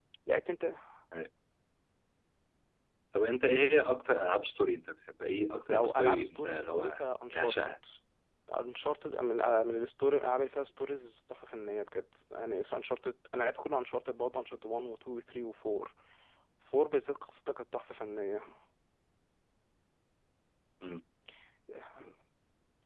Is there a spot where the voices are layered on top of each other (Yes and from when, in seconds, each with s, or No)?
Yes, from 5.7 s